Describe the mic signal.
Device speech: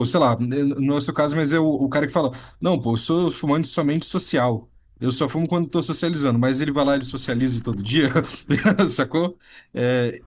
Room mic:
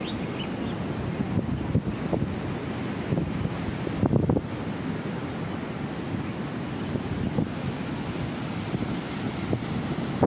neither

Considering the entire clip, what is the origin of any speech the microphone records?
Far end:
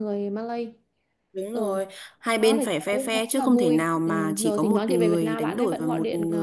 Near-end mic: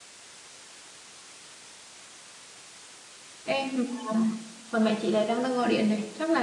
user only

